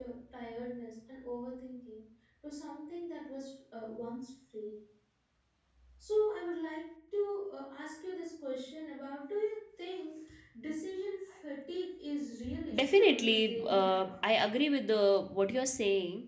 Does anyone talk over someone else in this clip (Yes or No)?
Yes